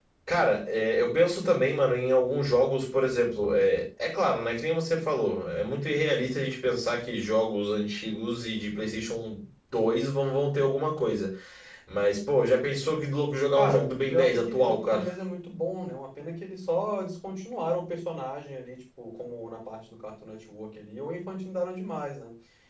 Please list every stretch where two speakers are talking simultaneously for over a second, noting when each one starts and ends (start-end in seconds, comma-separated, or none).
13.6-15.0